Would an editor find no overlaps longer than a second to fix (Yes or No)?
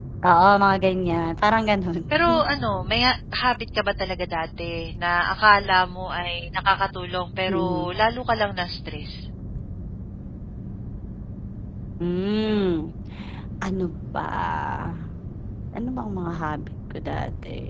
Yes